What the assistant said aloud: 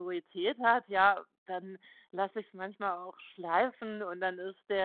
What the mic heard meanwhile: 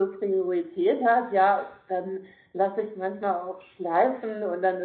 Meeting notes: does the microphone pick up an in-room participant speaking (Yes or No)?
No